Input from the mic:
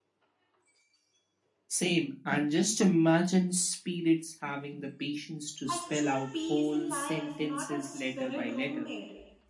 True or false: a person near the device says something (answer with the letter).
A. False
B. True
B